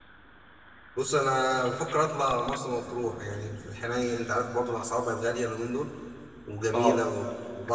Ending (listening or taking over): listening